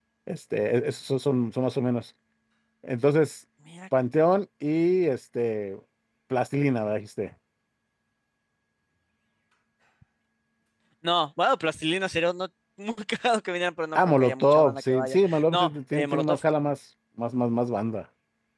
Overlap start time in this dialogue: 13.9 s

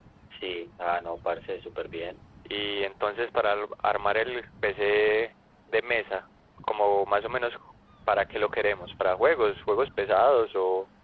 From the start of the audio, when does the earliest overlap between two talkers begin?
none

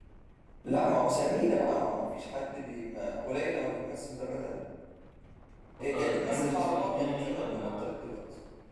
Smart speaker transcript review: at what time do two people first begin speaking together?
5.8 s

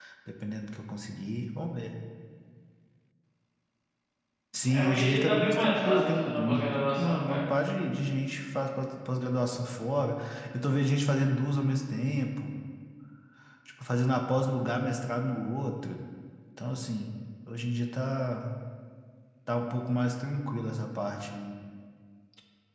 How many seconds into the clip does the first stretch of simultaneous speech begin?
4.7 s

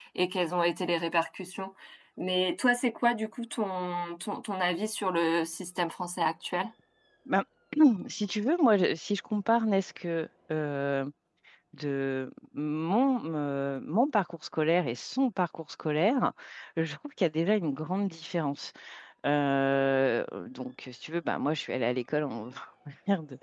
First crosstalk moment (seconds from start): none

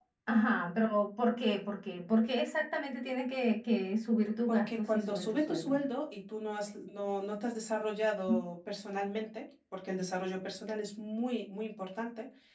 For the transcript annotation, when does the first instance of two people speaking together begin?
4.5 s

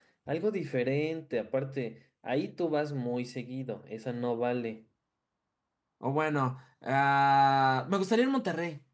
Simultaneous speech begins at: none

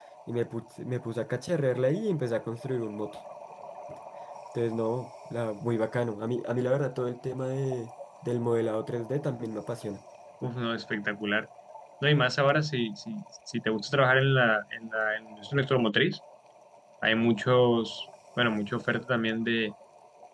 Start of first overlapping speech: none

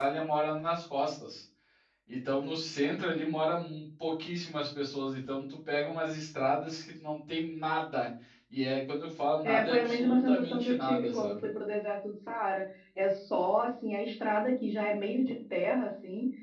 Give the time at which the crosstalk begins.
9.4 s

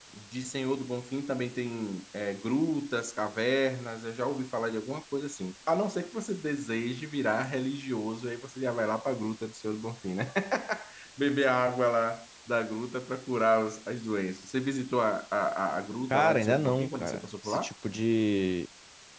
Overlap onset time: 16.1 s

